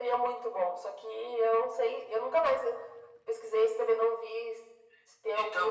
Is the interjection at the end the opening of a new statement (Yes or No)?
Yes